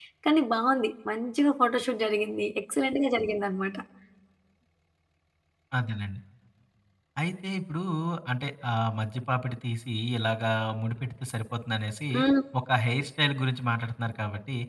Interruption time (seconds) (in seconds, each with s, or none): none